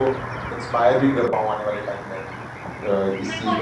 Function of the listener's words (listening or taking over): taking over